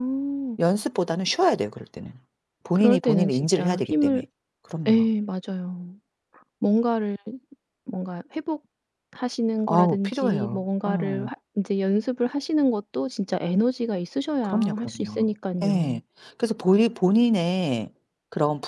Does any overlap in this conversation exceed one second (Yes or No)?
Yes